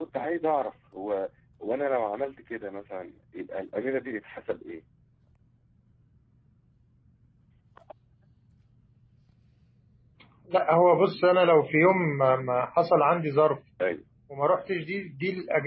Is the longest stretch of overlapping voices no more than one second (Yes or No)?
Yes